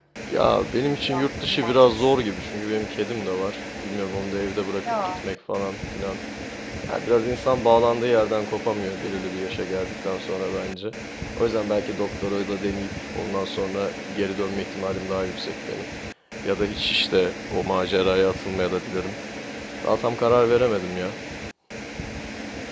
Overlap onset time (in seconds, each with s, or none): 1.0 s